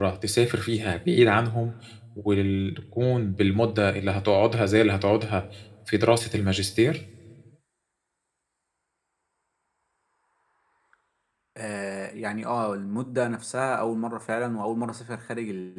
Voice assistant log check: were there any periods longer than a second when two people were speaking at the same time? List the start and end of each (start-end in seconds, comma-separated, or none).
none